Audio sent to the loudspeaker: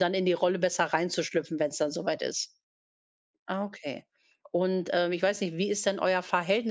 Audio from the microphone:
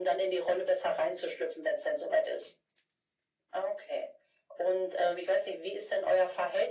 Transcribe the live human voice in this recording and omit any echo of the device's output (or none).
none